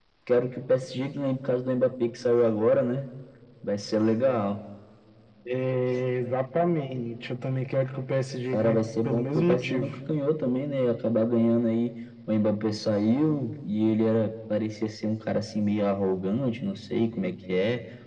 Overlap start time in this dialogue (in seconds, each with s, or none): 8.5 s